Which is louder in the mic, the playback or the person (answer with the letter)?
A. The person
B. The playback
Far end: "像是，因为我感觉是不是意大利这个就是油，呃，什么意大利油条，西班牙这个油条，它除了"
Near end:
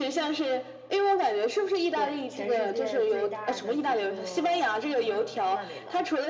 B